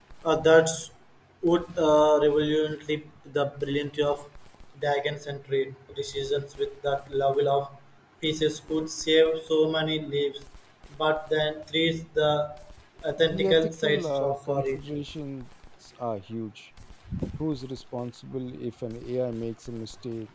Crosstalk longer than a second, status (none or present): present